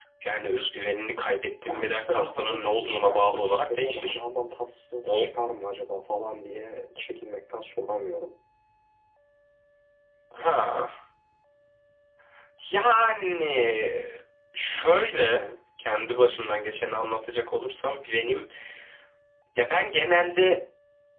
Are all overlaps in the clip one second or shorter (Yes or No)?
No